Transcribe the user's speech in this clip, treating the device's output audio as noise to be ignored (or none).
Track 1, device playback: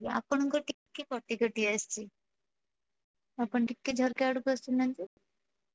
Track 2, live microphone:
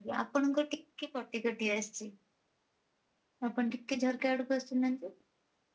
none